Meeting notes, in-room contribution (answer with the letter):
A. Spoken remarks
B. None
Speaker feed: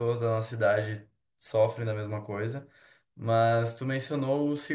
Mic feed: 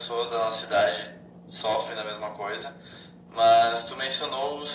B